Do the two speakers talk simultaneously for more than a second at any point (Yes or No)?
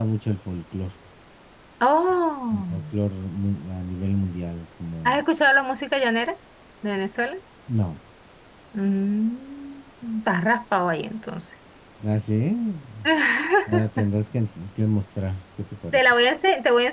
No